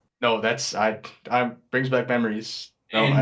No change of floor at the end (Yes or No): No